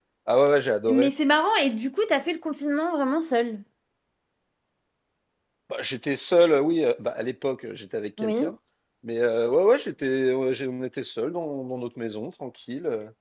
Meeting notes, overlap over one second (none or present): none